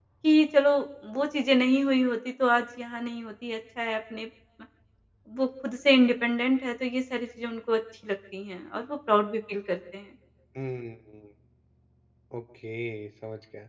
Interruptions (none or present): none